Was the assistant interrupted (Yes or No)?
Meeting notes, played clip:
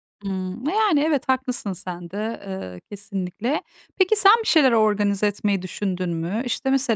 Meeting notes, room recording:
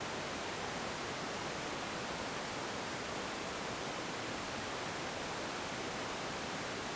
No